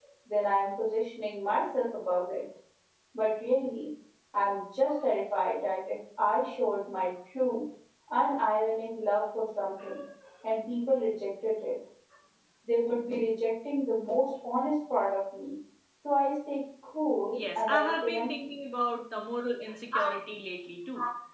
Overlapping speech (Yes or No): Yes